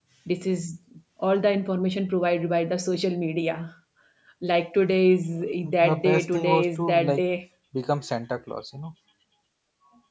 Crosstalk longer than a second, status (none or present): present